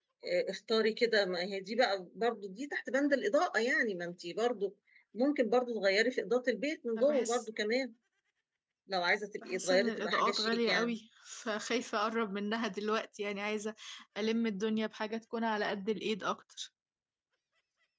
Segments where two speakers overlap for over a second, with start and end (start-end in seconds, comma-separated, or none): 9.4-10.9